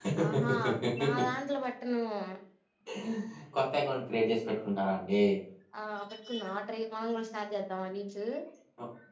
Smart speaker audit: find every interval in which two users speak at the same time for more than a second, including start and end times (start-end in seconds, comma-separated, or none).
none